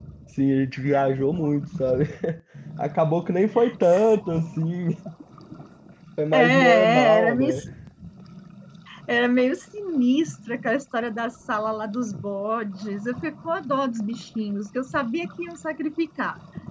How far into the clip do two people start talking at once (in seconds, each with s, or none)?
6.3 s